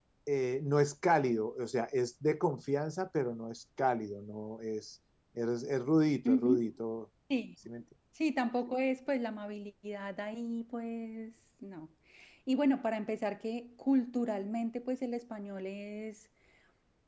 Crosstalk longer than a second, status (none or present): none